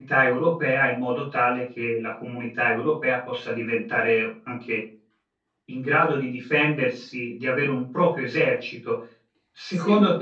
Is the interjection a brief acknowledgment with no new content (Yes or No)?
Yes